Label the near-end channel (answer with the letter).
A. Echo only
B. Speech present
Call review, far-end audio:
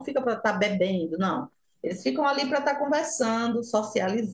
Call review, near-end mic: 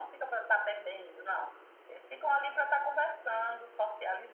A